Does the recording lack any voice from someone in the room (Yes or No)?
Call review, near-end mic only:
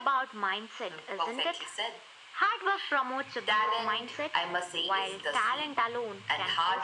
Yes